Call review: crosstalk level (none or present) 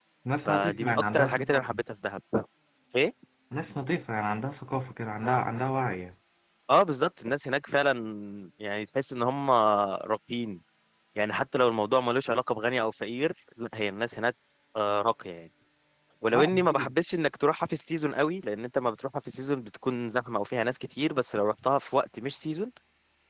present